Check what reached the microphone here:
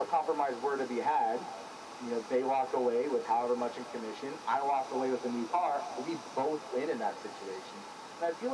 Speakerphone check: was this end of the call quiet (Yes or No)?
Yes